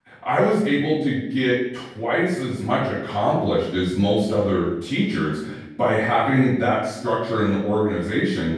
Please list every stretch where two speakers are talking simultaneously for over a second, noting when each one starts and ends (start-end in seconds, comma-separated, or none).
none